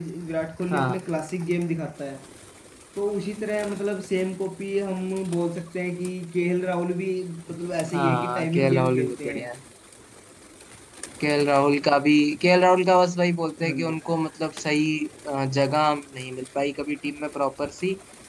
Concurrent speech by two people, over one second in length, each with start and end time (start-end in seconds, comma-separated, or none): 7.9-9.4